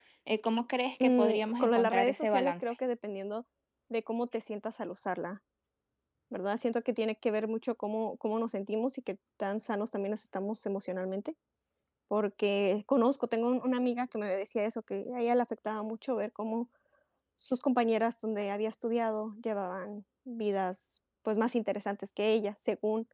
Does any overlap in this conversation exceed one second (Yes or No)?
Yes